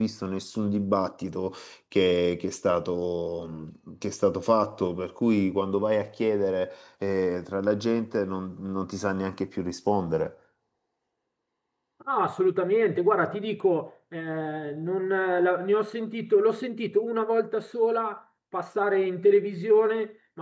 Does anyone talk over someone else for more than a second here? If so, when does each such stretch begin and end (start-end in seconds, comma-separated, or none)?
none